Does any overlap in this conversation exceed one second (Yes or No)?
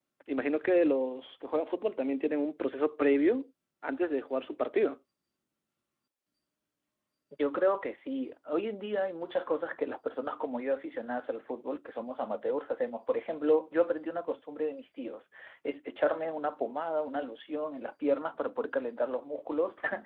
No